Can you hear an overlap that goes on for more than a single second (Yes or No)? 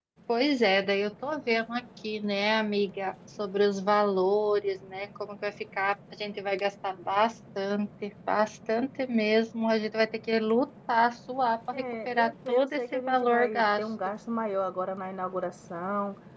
Yes